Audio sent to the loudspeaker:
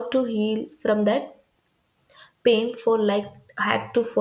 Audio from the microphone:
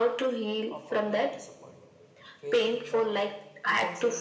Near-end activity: present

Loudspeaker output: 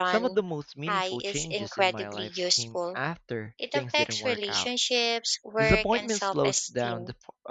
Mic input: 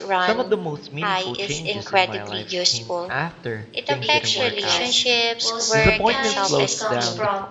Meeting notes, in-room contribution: present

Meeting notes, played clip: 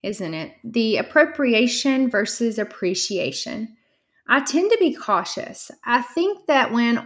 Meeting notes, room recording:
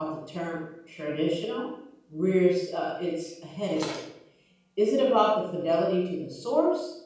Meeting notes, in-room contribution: present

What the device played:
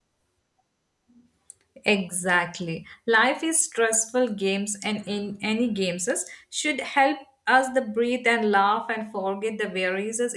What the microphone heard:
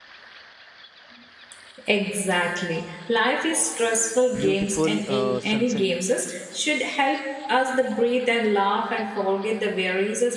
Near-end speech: present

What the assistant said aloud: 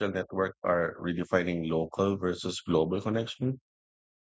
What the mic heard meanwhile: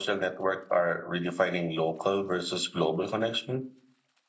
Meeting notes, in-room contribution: none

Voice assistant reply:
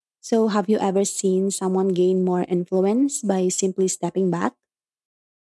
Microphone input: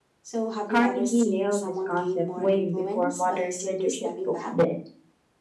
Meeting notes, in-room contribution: present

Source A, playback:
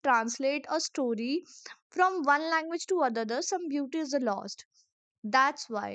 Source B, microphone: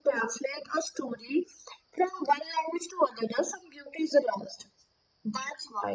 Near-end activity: none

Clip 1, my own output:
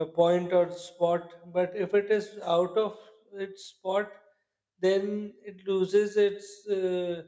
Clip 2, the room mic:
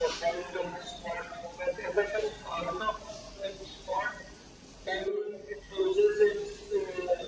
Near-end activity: none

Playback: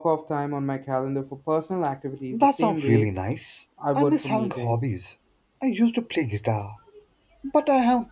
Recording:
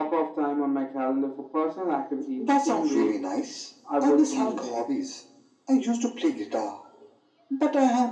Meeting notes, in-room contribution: none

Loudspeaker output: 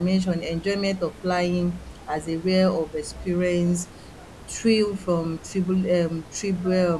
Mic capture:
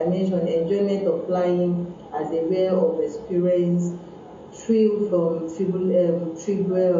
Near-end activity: none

